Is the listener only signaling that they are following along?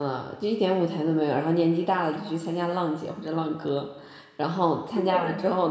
Yes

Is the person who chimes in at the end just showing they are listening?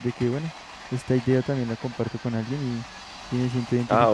No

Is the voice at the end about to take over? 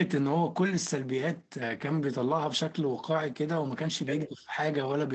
No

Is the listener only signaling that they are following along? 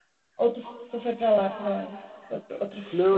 No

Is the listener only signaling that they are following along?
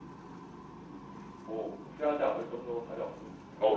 No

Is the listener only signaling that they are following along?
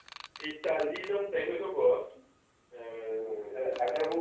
No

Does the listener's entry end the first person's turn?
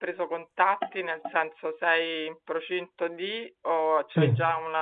No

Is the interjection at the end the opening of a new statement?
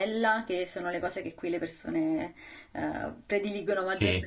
No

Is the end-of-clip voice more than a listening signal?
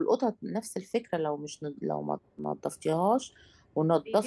Yes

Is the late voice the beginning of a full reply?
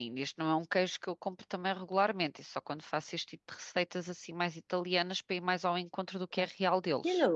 Yes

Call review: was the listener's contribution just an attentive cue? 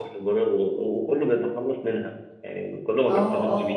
No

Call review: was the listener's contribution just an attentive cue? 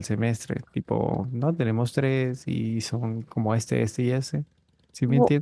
No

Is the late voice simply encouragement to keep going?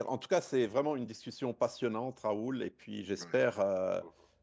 Yes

